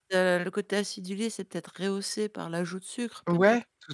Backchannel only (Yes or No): No